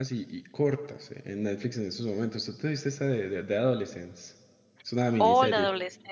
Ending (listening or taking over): taking over